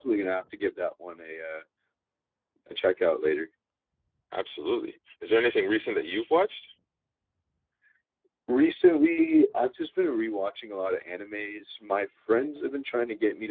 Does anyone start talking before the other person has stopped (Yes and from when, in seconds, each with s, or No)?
No